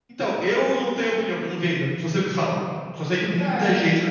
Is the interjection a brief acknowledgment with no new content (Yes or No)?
No